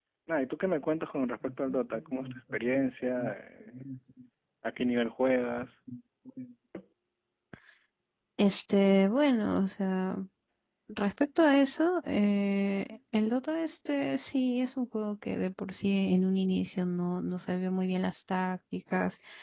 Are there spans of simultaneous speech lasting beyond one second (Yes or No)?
No